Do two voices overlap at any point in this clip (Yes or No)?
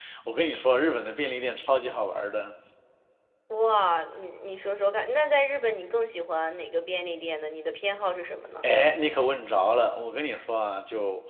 No